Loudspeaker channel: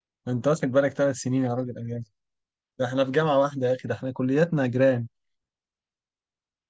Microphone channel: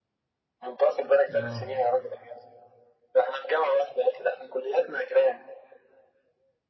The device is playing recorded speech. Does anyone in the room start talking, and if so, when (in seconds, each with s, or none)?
1.4 s